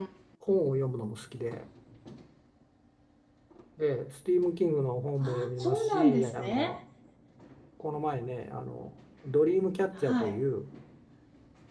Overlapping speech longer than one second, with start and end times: 5.2-6.8

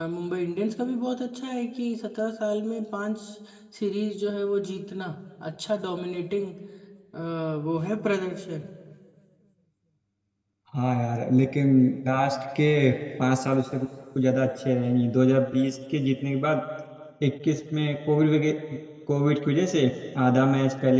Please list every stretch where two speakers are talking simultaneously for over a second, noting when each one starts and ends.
none

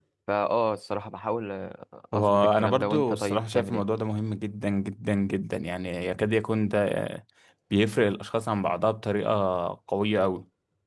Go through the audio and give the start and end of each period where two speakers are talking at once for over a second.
2.1-3.8

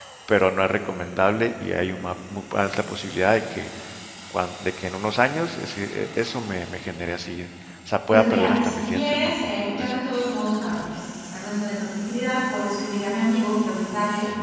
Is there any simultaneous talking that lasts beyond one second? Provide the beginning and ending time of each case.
8.1-9.9

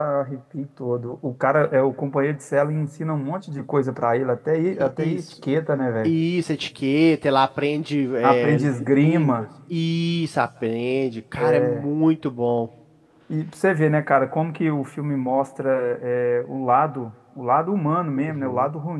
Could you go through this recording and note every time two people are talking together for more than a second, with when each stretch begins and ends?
8.2-9.5

